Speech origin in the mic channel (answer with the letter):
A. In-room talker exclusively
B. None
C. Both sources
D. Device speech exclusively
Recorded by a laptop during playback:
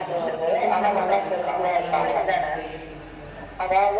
C